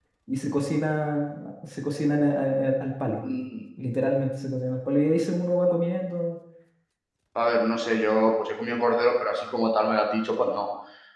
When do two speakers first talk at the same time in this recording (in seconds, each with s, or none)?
none